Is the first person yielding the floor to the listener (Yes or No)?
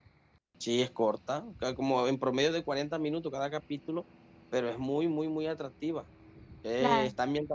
No